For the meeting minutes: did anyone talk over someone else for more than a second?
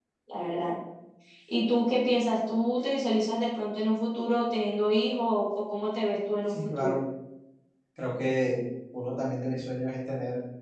No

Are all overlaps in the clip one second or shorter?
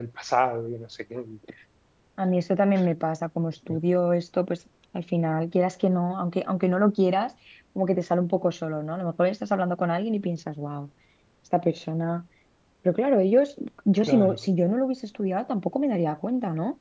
Yes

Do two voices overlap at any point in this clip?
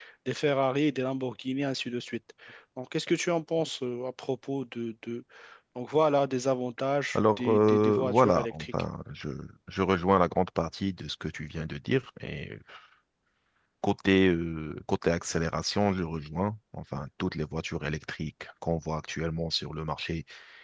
Yes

